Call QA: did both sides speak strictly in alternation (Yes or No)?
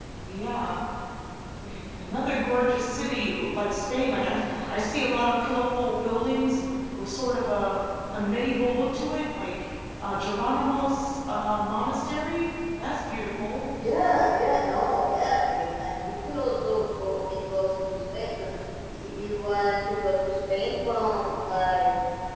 Yes